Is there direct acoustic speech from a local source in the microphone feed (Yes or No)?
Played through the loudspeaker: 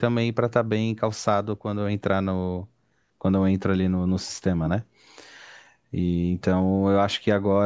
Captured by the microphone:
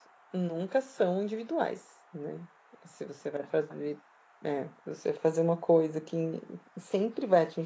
Yes